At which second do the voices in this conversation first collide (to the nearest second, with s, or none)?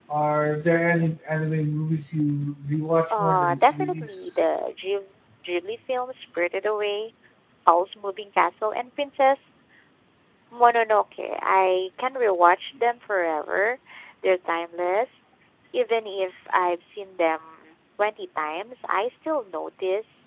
3 s